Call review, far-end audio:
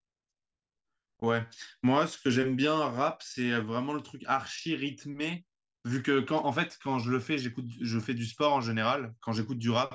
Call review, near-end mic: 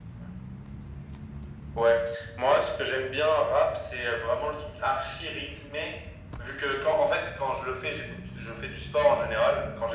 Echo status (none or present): present